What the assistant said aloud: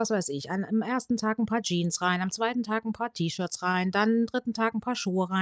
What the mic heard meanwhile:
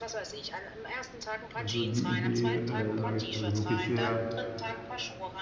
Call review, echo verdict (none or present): present